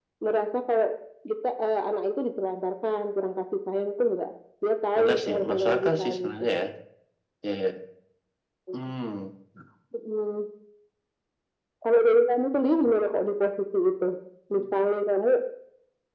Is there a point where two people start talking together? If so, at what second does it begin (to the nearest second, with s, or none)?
5 s